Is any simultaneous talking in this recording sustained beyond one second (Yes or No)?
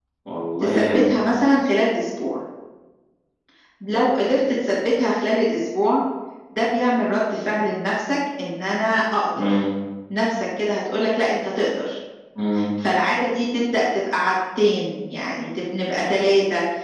No